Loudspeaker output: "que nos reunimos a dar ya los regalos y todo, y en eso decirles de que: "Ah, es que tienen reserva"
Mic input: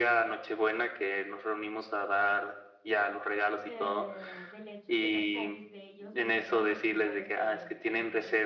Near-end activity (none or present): present